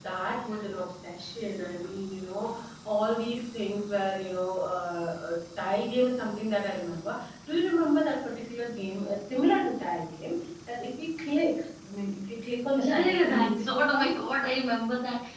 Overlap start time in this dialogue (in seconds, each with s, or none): 12.8 s